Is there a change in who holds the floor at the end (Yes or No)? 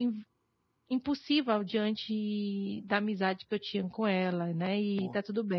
Yes